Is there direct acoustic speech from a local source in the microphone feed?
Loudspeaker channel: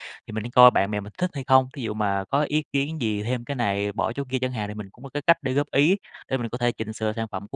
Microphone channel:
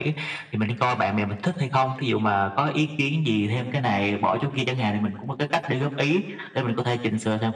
No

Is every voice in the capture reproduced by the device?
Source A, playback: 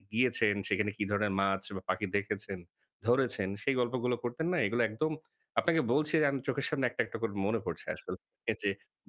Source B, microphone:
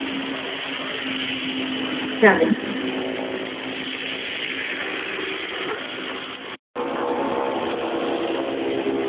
No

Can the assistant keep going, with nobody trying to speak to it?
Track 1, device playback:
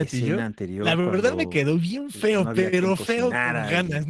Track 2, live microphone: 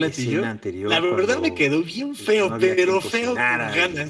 Yes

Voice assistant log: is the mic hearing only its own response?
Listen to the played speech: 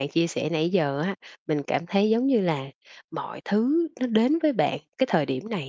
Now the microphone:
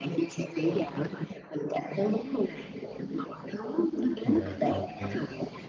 No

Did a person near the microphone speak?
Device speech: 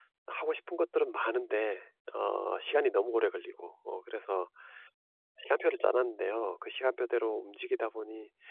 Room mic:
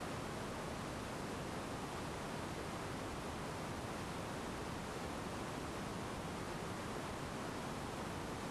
No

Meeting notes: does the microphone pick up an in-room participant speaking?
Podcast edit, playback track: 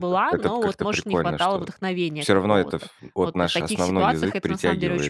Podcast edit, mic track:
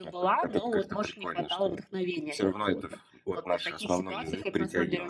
No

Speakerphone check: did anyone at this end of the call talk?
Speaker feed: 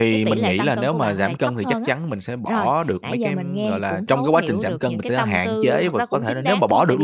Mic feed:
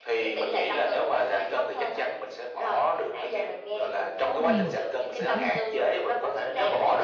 Yes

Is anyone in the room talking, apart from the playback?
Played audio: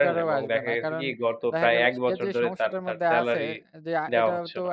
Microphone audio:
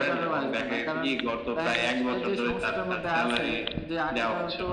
No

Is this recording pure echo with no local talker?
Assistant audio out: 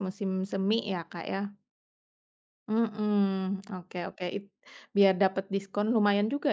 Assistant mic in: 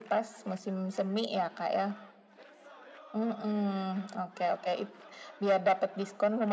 Yes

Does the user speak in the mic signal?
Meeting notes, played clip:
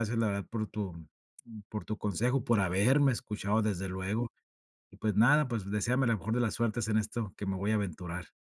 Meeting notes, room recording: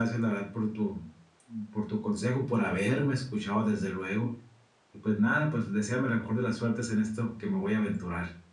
No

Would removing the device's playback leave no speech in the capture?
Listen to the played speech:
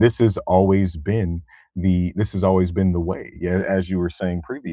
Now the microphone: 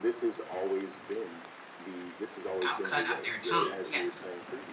No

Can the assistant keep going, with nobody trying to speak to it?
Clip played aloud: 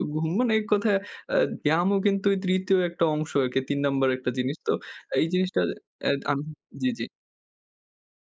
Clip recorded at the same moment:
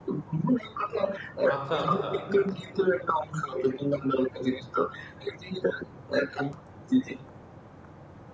No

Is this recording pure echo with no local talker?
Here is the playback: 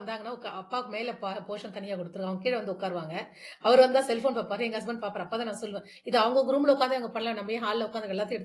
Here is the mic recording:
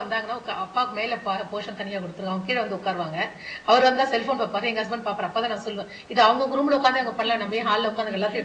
No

